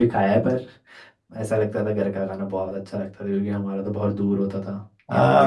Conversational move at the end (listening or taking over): taking over